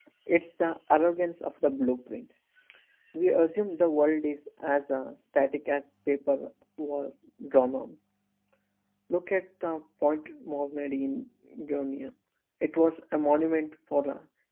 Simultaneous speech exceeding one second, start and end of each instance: none

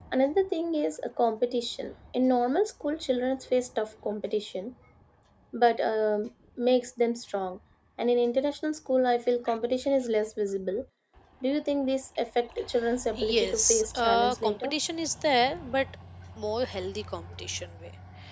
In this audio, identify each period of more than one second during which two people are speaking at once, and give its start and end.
13.2-14.7

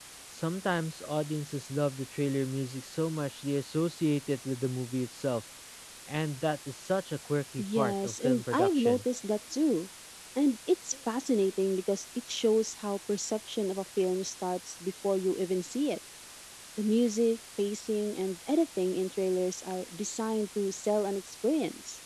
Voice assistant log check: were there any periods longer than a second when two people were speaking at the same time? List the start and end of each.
7.6-9.0

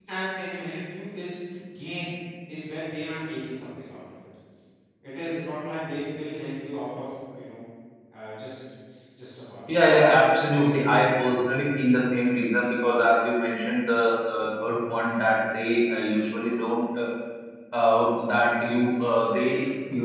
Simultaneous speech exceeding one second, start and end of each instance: 9.7-11.1

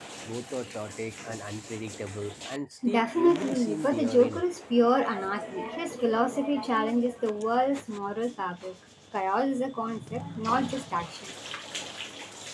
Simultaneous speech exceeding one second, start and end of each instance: 2.9-4.4

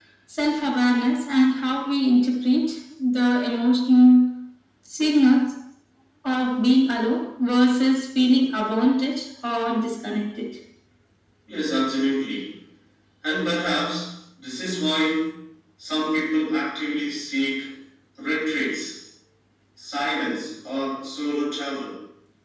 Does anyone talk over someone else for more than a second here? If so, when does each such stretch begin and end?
none

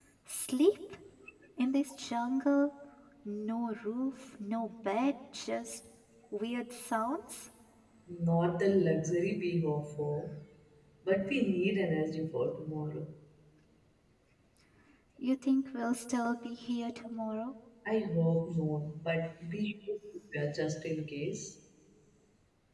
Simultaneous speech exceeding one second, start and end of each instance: none

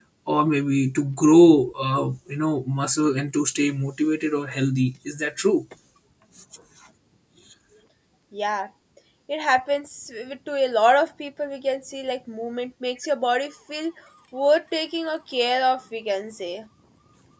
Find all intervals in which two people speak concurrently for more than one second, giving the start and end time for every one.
none

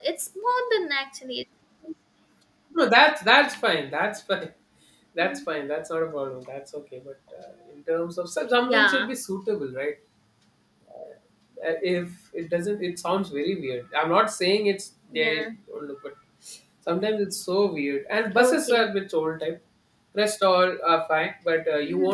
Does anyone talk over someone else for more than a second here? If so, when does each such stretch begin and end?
none

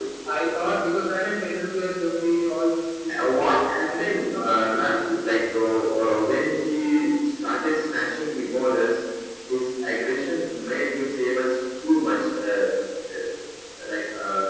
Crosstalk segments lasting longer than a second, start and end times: 3.2-5.0

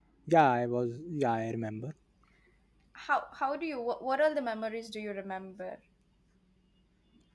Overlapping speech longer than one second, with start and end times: none

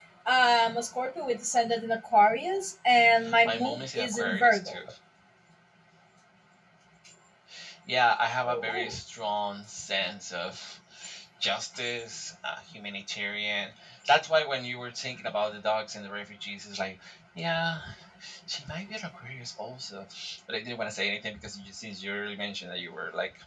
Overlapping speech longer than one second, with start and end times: 3.4-4.8

